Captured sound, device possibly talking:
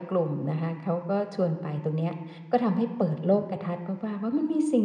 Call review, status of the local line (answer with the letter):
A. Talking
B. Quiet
B